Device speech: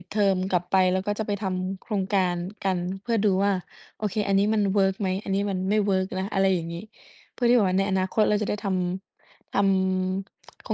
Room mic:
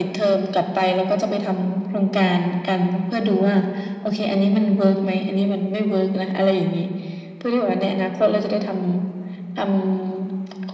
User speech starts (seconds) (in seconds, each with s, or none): none